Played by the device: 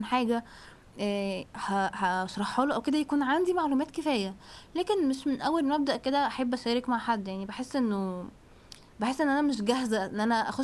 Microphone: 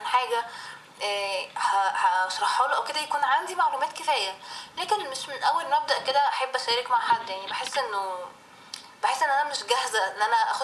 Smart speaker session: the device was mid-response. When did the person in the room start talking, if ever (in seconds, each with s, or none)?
none